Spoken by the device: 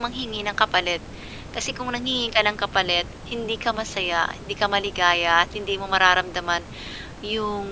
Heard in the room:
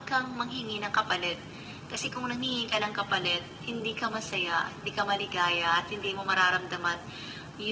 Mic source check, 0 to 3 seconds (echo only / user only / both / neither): echo only